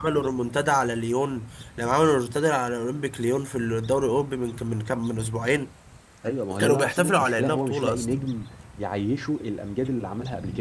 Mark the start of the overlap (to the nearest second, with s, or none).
7 s